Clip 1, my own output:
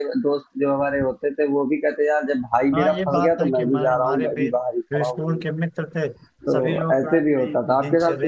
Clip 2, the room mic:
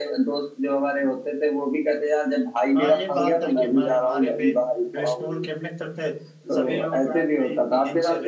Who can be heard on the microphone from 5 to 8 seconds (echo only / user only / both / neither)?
echo only